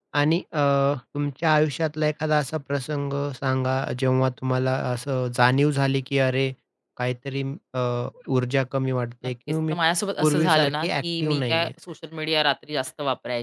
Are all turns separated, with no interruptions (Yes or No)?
No